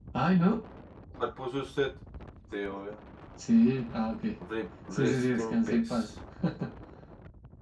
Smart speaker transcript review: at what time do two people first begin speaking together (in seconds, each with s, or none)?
4.9 s